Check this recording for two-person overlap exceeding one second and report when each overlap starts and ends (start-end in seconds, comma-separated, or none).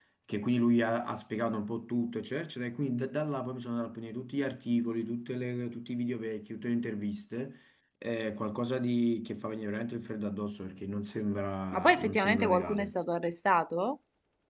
11.7-12.9